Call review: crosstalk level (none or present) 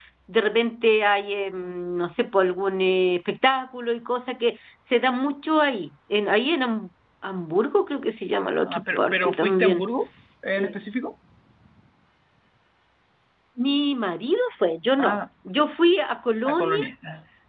present